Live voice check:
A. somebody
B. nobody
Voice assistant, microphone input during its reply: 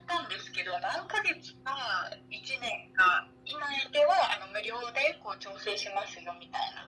B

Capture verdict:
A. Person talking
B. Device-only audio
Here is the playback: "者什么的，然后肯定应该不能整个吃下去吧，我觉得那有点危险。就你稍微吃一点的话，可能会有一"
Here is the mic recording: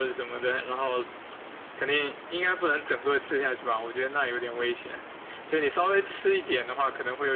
B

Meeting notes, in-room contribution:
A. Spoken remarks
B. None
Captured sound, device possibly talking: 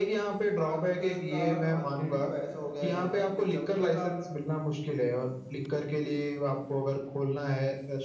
A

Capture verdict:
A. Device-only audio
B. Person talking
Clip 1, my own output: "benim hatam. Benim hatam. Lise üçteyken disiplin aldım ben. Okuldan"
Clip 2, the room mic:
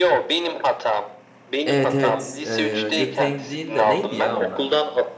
B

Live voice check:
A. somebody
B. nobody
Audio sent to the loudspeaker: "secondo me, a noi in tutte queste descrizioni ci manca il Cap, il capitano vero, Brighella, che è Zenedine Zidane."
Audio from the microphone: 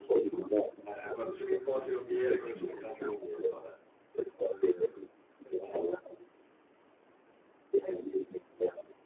A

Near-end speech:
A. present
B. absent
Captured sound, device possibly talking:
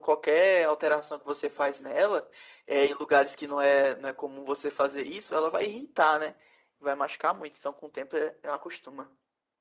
B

